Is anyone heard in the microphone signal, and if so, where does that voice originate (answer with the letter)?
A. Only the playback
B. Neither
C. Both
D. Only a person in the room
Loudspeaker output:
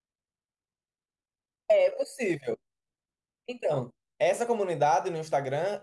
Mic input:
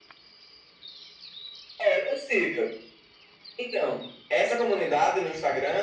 A